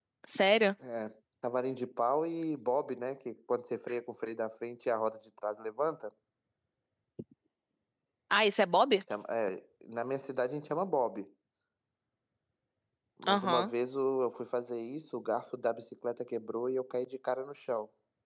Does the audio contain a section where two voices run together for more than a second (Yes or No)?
No